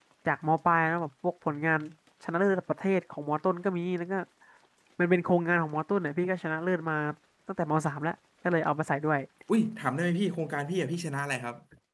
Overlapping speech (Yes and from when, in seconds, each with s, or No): No